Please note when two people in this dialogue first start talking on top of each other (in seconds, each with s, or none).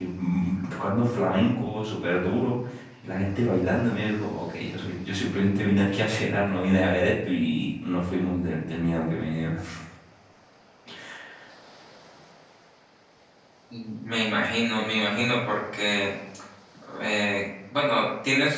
none